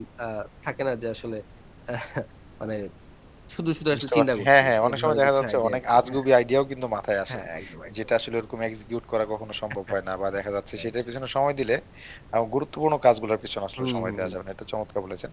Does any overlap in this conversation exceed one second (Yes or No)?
Yes